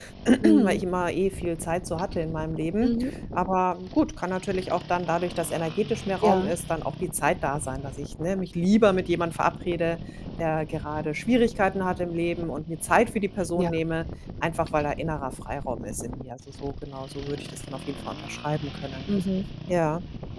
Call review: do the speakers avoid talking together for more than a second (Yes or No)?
Yes